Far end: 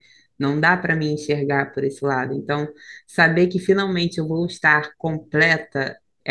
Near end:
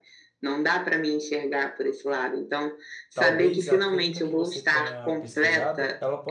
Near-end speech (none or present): present